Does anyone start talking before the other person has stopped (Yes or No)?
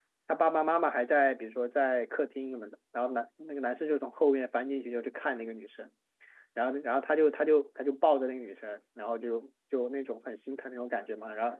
No